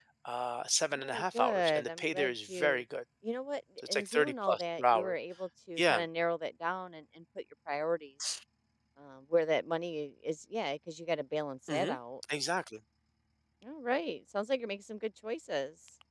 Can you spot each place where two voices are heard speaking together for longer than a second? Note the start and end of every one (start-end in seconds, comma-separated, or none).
0.9-2.8, 3.9-5.1